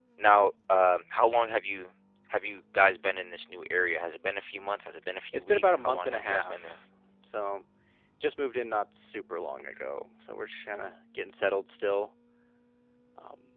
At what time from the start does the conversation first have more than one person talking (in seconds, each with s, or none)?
5.3 s